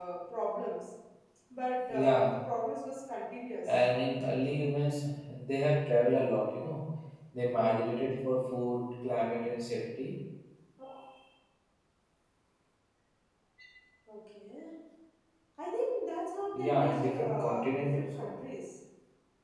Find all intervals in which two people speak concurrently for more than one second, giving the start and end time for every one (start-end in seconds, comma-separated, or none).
16.5-18.3